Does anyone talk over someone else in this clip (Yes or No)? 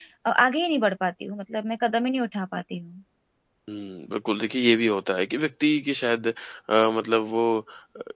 No